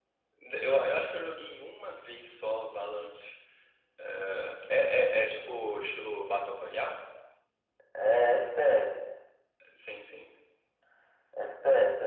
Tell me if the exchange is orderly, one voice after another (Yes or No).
Yes